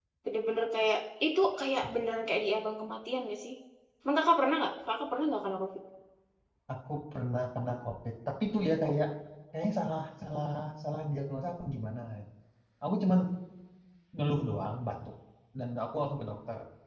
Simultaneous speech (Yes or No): No